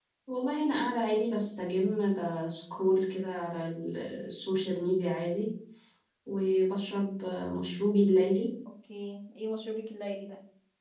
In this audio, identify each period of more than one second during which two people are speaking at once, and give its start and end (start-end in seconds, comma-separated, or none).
none